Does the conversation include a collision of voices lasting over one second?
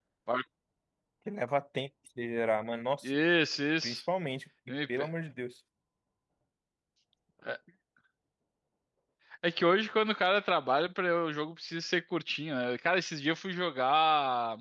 No

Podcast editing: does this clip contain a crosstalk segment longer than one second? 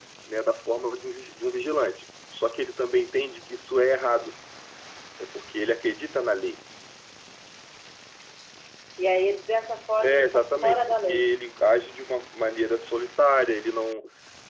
Yes, from 10.0 s

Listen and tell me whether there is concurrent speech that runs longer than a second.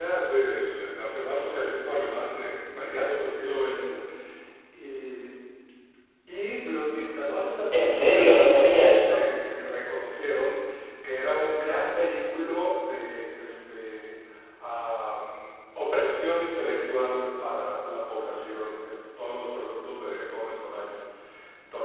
Yes, from 7.7 s

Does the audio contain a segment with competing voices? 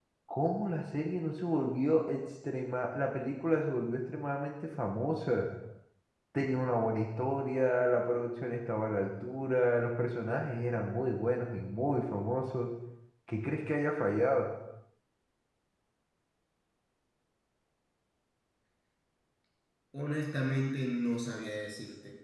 No

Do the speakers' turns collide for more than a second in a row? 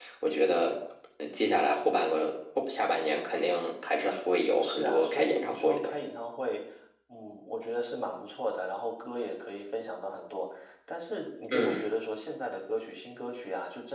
Yes, from 4.6 s

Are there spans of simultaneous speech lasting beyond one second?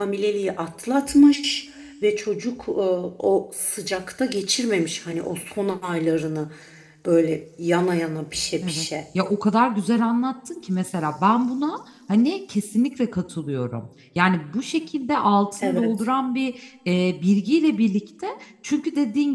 No

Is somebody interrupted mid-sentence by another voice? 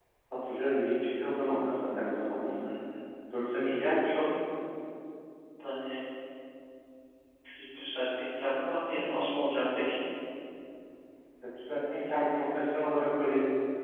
No

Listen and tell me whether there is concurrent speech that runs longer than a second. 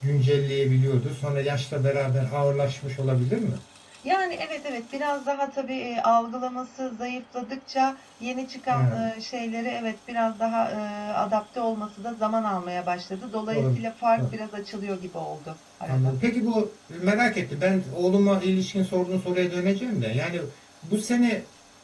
No

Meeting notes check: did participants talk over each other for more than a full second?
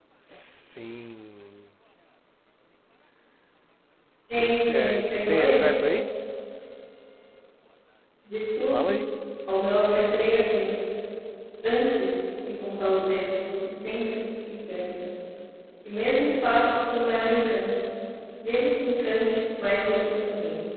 Yes, from 4.4 s

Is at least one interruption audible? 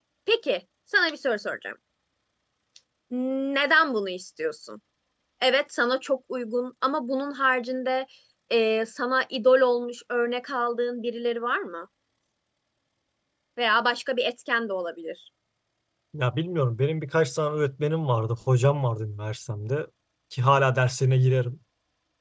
No

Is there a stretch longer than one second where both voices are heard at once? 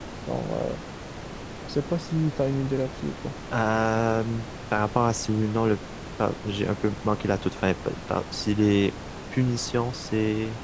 No

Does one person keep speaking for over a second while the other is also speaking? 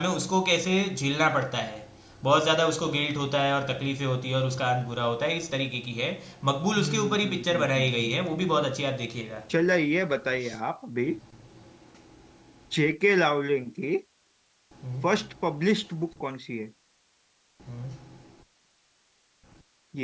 Yes, from 6.8 s

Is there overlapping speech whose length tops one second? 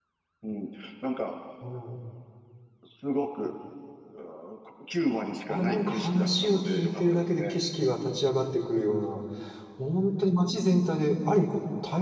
Yes, from 5.5 s

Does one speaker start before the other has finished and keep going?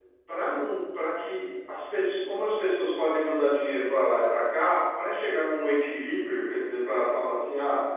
No

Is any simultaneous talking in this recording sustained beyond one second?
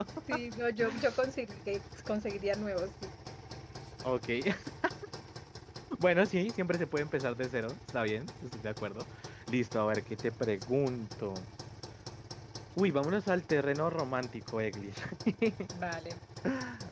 No

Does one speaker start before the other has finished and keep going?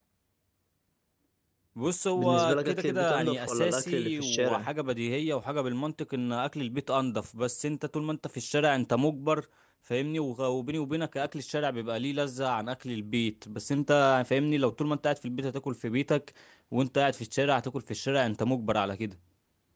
Yes, from 2.2 s

